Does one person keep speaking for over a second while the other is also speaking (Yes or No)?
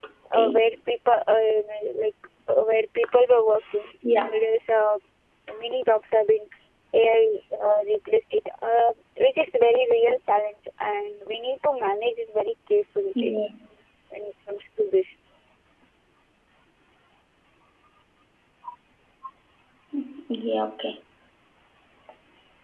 No